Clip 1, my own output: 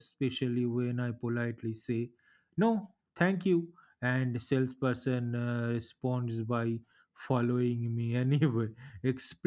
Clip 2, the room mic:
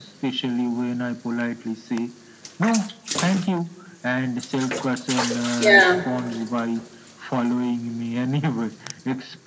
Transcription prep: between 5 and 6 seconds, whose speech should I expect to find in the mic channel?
both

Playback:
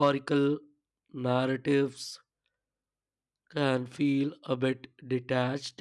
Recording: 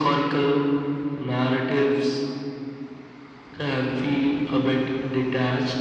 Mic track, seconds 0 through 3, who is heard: echo only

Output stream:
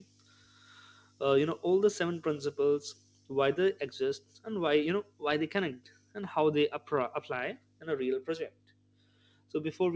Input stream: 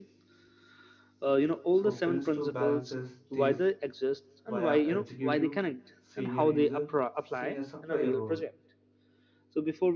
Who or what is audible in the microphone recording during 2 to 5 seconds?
both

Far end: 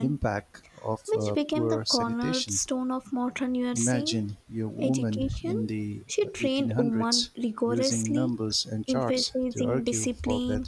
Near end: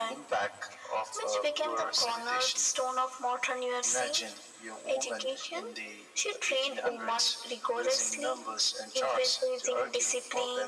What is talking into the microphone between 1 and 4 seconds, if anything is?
echo only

